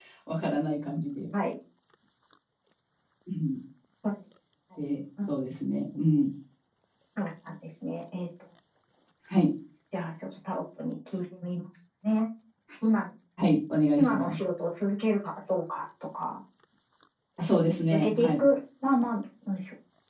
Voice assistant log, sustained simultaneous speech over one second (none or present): none